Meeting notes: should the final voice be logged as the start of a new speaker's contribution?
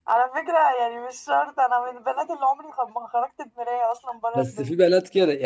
Yes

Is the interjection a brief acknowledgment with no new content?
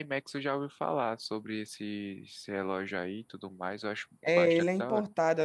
No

